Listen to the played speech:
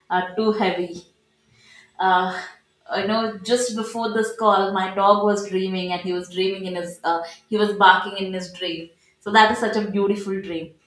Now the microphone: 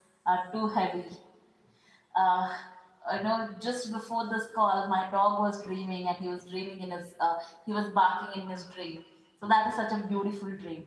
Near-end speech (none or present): none